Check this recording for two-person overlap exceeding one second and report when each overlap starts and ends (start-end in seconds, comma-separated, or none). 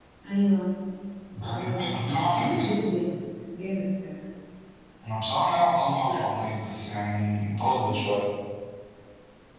1.4-2.7